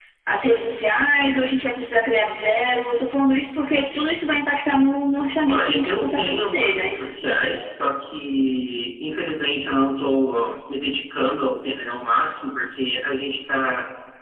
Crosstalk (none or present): present